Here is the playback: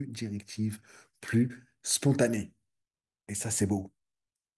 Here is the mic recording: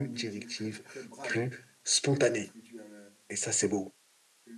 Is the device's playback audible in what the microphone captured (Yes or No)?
Yes